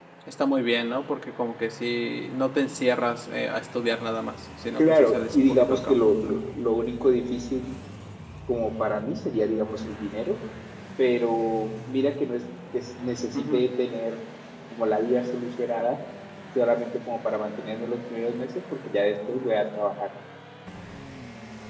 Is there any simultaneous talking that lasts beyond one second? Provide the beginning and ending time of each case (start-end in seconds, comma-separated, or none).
4.8-6.1